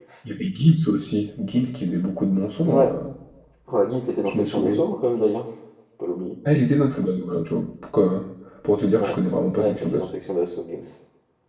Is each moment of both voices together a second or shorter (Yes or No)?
Yes